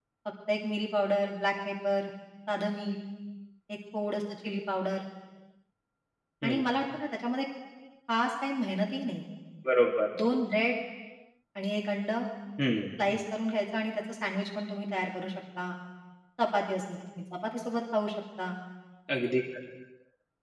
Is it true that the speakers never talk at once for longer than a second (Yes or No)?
Yes